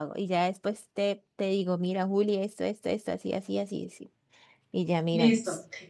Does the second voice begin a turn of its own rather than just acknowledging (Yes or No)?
Yes